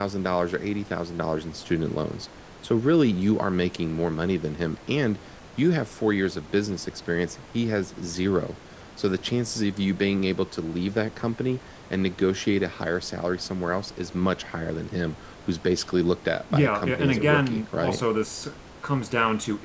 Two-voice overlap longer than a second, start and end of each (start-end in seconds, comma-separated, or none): 16.5-18.0